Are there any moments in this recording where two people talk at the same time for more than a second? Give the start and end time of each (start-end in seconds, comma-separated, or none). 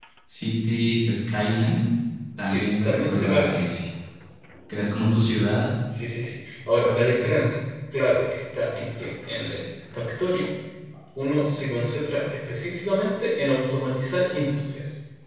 2.4-3.7